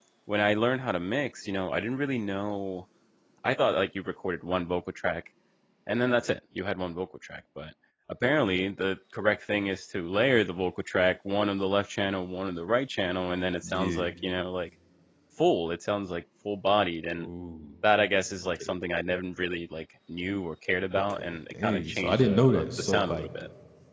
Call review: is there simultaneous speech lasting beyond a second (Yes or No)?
Yes